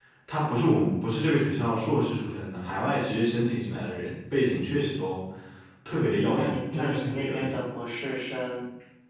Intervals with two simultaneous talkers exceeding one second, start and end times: 6.3-7.5

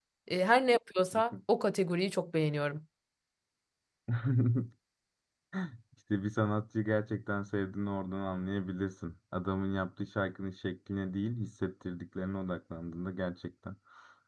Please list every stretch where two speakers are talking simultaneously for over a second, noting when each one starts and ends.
none

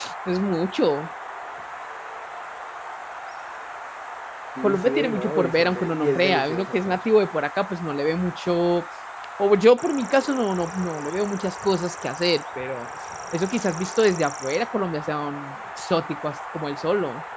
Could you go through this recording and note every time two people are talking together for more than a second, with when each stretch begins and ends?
4.6-7.0

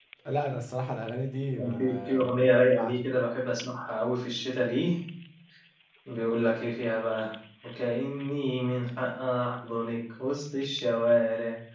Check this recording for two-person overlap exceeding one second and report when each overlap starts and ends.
1.6-3.0

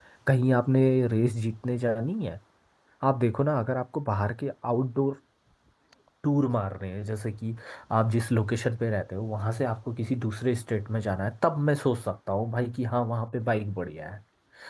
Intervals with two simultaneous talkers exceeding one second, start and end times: none

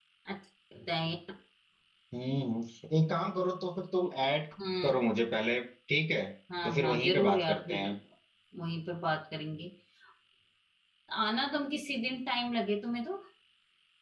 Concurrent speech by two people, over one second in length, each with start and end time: 6.7-7.8

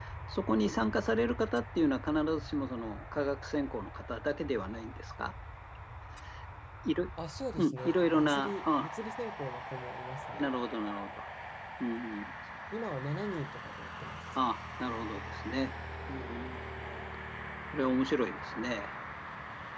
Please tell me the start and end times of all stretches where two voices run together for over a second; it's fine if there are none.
7.6-8.9

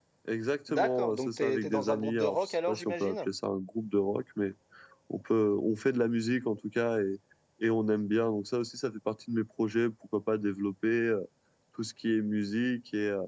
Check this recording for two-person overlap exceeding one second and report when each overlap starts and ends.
0.7-3.3

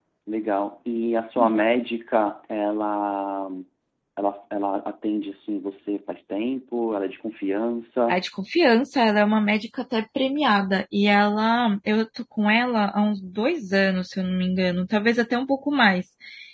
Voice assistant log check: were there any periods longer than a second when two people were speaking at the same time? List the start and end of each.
none

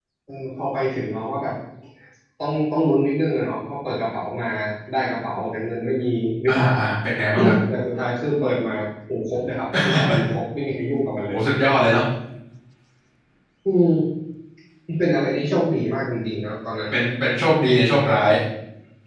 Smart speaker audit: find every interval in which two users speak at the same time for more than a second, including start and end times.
none

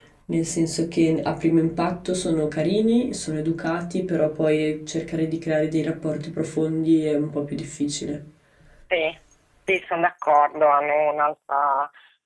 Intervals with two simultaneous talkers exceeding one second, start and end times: none

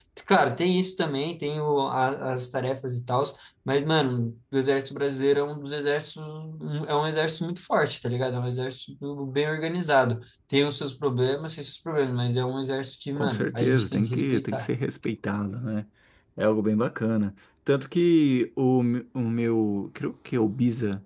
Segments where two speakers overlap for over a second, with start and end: 13.2-14.7

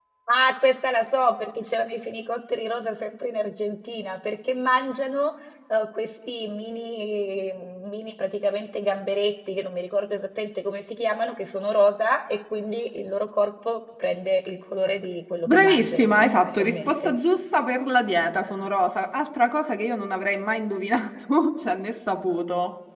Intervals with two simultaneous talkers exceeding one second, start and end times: 15.5-17.1

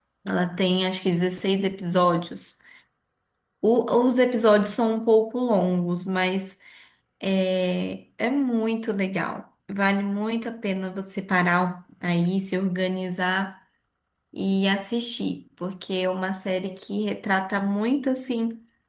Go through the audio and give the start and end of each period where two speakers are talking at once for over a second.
none

